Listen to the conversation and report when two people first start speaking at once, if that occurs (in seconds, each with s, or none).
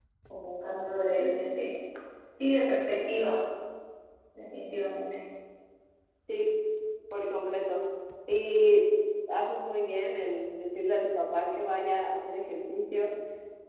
none